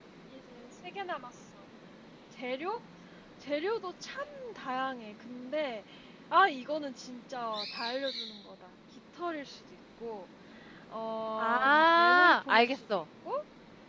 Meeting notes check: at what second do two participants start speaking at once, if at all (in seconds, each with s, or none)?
11.4 s